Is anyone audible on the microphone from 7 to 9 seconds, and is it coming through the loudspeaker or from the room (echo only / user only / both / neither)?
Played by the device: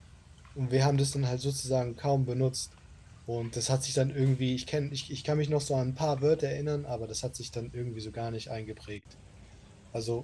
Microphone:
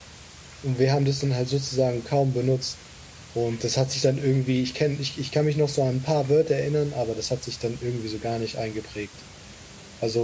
echo only